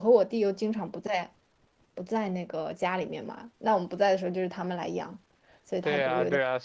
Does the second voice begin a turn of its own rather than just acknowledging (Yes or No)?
Yes